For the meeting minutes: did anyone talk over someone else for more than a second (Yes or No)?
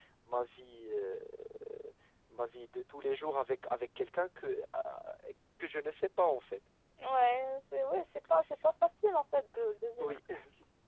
No